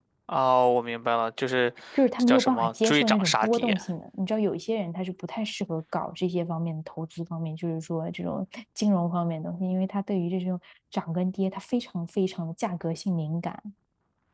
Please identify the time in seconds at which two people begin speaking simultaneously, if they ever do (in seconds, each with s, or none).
2.2 s